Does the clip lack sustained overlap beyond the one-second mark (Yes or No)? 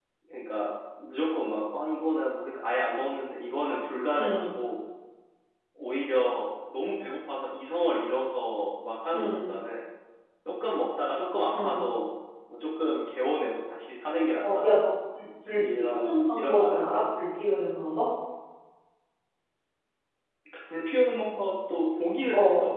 No